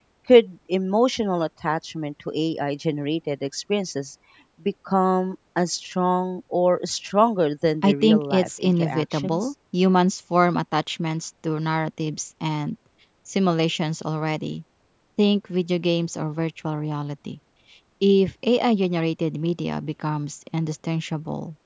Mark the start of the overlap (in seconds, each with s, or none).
7.8 s